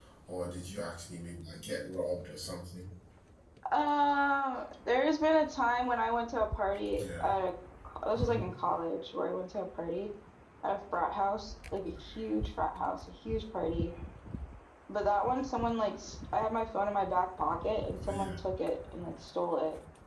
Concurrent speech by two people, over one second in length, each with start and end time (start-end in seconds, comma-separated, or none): none